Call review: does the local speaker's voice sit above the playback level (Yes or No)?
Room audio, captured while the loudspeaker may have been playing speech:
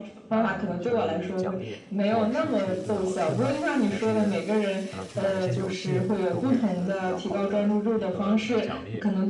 No